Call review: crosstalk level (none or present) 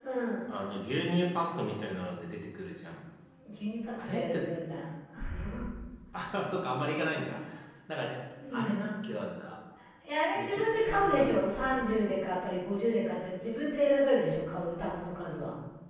present